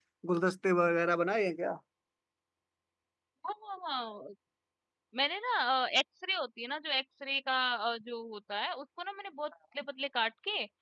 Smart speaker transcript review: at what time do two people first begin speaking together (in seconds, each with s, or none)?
none